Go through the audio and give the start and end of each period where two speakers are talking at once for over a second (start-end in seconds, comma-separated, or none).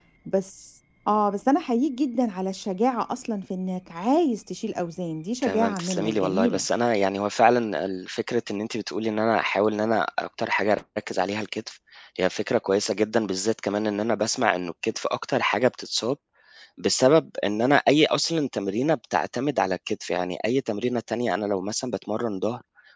5.4-6.6